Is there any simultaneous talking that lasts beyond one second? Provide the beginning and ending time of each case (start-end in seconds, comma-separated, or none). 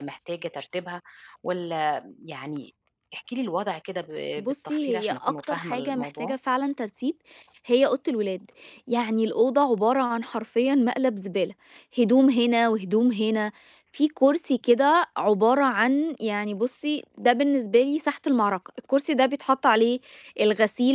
4.5-6.3